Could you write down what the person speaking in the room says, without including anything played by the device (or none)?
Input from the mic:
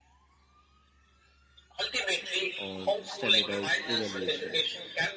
on standardized evaluation.